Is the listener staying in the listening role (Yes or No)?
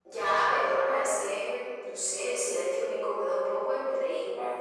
Yes